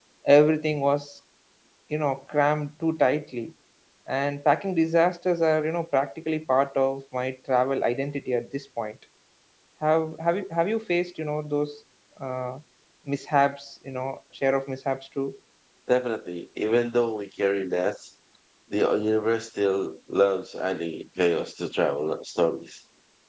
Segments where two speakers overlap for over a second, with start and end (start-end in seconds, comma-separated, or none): none